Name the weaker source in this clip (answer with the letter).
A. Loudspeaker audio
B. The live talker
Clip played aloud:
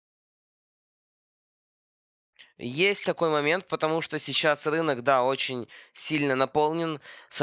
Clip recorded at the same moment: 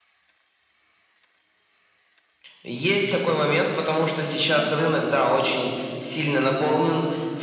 B